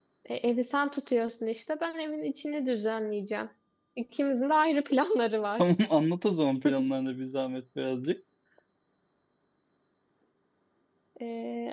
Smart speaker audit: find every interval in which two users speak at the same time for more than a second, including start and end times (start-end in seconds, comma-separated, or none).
none